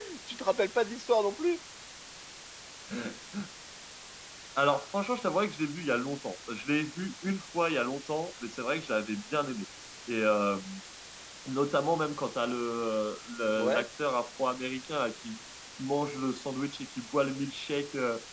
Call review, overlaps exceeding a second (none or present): none